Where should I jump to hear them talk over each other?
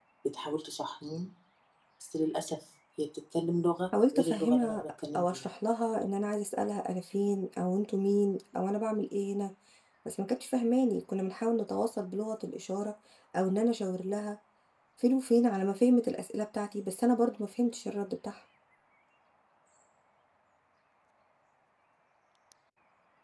4 s

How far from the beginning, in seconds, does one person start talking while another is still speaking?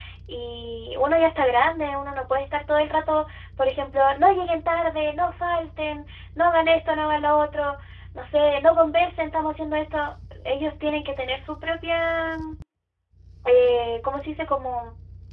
none

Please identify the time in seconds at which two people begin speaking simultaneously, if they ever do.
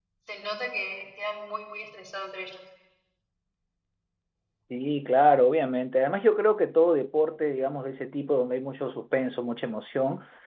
none

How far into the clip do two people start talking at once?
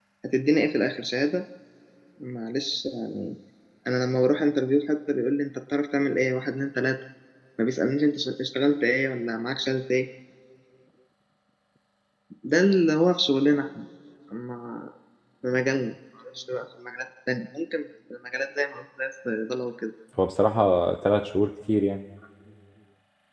none

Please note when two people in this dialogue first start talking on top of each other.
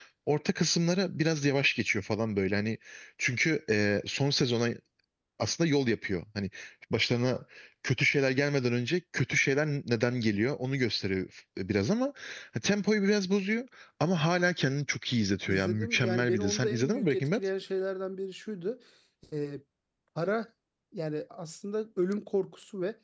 15 s

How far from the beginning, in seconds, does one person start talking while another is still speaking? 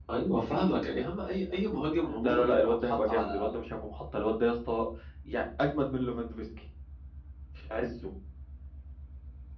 2 s

